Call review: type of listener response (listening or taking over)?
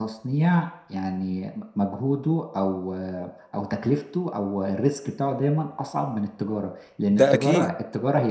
listening